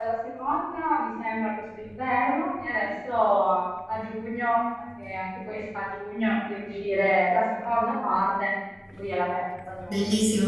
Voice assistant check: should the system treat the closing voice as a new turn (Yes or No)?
Yes